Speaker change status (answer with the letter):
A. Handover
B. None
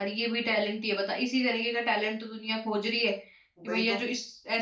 B